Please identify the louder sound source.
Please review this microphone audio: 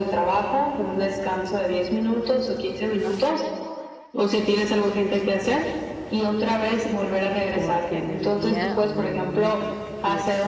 echo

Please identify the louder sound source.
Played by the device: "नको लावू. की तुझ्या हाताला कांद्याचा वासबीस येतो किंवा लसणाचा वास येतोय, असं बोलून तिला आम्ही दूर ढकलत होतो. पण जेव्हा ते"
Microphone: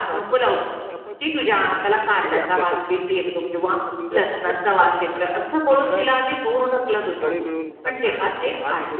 echo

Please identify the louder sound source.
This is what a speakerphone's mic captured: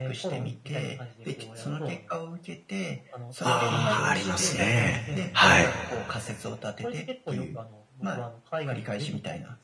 user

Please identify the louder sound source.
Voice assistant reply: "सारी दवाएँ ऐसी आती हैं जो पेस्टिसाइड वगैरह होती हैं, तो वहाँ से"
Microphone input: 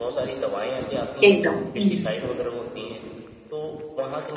user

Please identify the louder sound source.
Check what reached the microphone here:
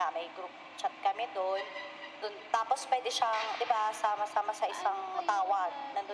echo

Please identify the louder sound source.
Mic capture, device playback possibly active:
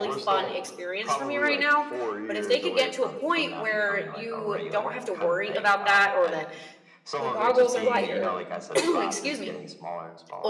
user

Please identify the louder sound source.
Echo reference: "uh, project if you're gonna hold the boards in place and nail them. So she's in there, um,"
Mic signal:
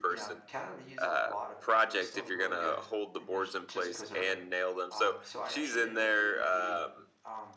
echo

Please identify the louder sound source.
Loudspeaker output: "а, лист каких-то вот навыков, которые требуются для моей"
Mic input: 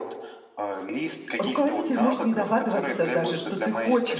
user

